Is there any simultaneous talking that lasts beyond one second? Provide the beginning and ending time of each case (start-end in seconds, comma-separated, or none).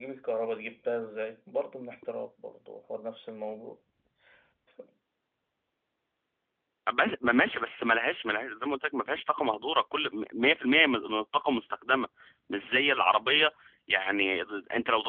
none